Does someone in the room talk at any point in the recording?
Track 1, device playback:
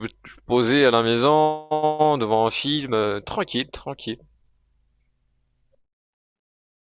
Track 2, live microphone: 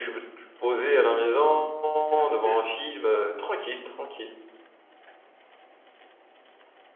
Yes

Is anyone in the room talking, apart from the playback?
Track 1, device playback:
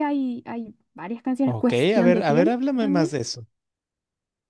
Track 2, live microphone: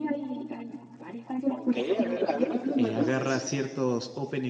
Yes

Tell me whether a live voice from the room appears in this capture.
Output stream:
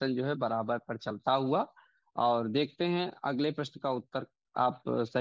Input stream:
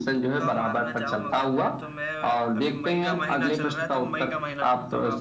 Yes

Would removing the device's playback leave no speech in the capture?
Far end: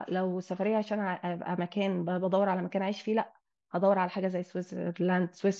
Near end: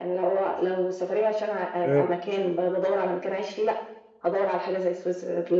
No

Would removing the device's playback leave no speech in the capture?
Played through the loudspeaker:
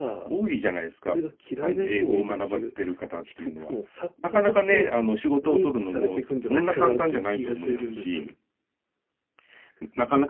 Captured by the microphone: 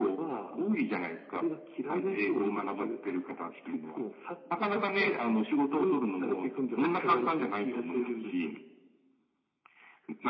Yes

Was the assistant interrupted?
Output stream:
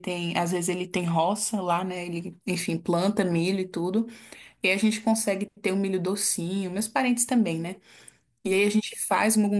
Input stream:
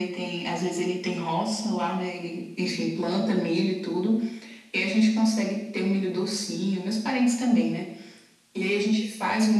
No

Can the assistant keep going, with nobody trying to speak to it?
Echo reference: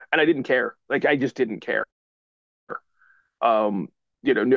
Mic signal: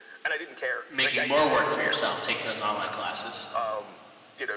No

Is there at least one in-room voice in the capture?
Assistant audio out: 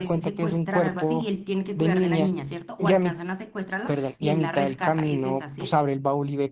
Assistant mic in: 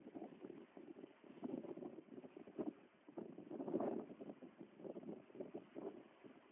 No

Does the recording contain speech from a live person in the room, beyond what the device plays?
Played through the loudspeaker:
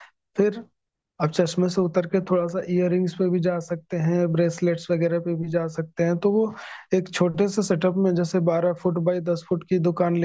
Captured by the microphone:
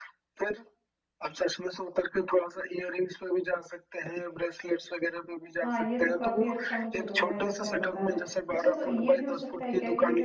Yes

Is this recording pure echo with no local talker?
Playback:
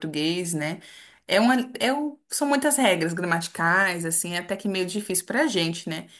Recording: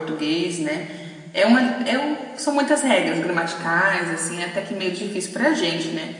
Yes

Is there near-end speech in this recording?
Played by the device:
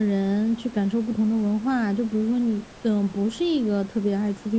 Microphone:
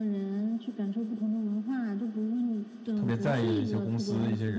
Yes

